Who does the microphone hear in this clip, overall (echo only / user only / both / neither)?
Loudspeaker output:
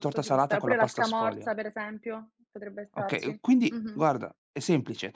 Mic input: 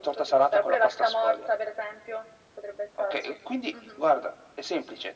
echo only